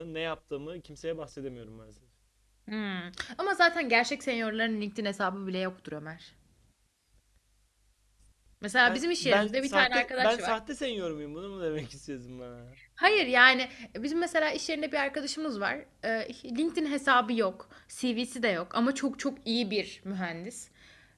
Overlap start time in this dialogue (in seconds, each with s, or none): 8.8 s